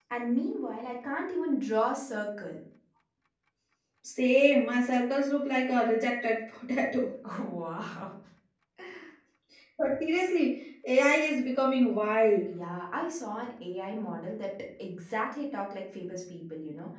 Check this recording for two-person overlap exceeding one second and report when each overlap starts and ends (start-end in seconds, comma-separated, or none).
none